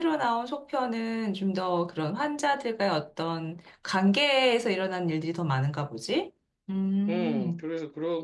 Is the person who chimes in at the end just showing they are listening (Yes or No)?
No